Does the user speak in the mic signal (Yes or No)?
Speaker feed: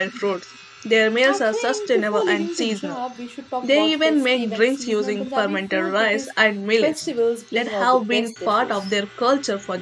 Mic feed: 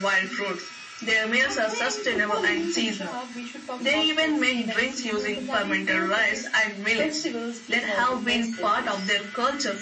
No